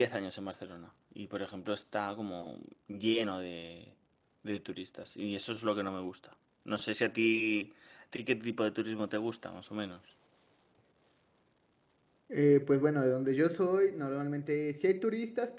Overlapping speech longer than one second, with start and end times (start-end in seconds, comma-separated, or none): none